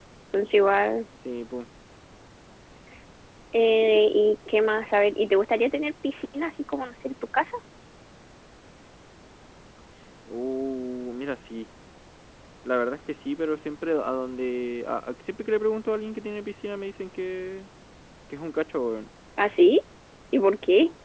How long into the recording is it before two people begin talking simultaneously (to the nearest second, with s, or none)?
none